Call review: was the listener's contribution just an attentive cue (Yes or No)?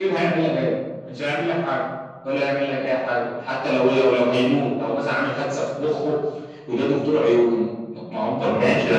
No